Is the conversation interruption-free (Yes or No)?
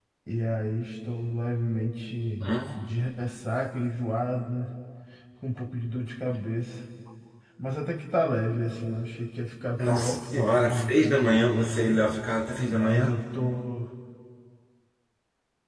No